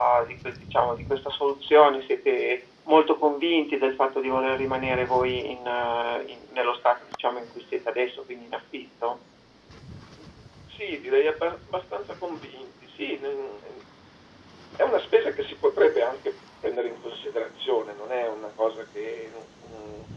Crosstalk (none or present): none